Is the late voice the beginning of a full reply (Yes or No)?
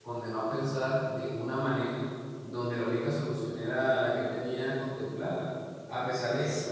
No